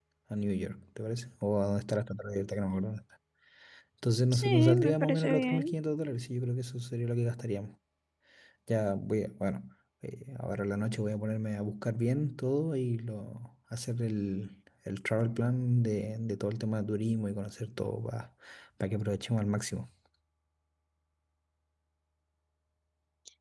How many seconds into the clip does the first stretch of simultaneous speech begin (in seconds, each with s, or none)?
4.3 s